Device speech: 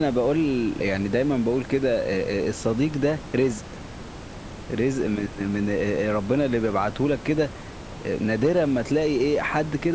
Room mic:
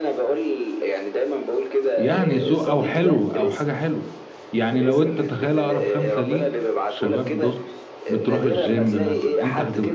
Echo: present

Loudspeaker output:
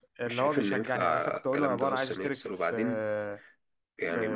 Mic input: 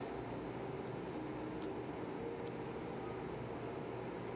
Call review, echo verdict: none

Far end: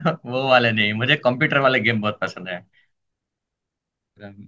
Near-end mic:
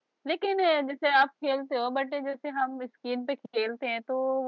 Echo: none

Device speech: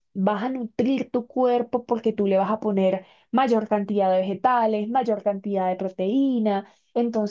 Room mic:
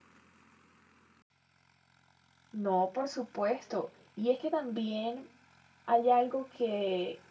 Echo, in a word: none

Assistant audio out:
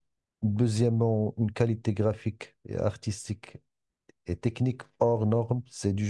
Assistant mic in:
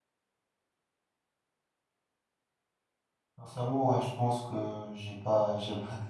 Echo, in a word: none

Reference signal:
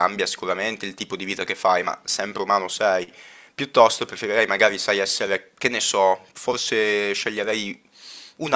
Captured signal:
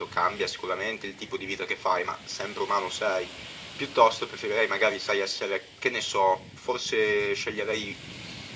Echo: present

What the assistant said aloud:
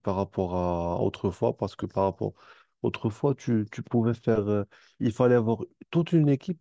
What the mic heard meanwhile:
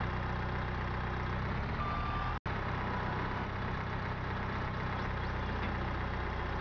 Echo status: none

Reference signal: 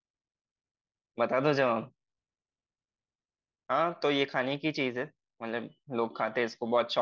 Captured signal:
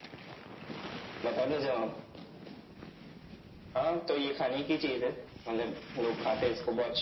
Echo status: present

